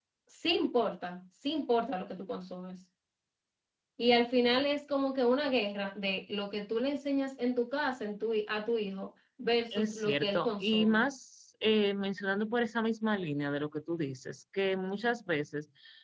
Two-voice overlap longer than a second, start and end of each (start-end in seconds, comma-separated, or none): 9.7-11.1